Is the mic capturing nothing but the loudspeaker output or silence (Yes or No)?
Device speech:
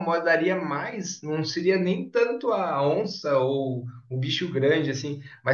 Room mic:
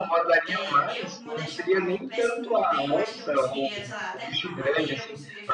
No